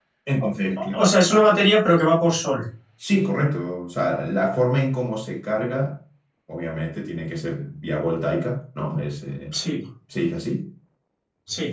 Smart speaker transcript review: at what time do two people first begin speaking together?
none

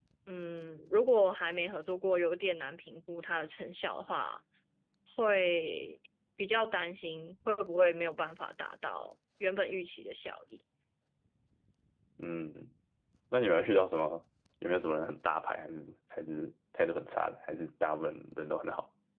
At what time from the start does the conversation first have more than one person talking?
none

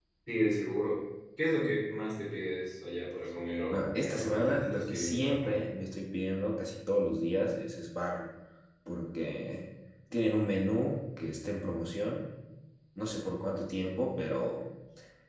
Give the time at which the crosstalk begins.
3.7 s

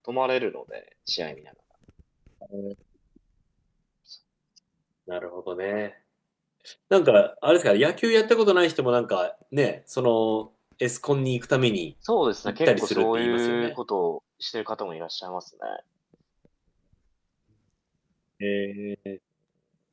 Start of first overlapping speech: 12.5 s

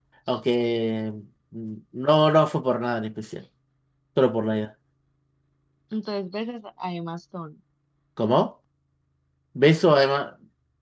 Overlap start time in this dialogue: none

